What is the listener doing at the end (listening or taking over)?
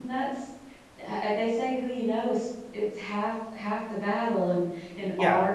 listening